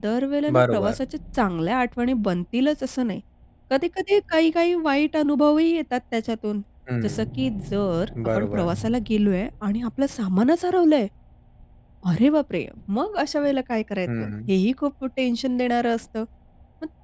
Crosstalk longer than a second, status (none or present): none